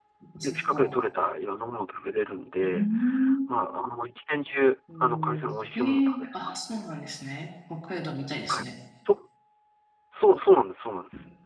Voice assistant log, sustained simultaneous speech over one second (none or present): present